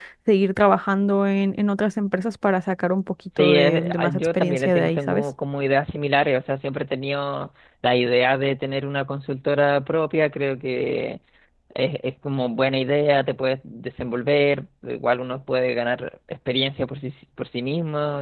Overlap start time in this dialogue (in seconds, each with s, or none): 3.3 s